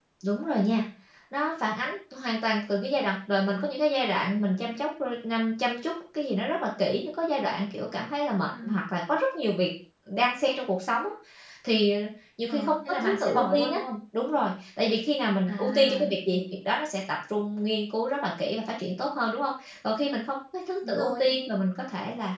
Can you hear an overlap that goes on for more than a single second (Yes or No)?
Yes